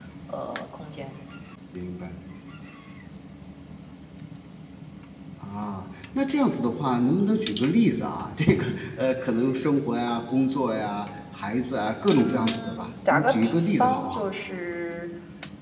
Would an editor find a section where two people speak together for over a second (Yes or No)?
Yes